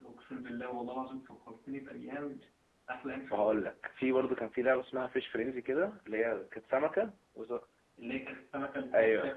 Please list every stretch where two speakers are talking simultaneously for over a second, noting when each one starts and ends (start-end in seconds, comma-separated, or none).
none